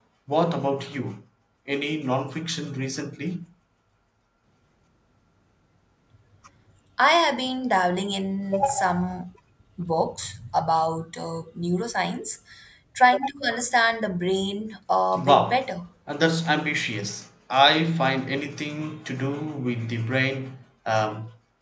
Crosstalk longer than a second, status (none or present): none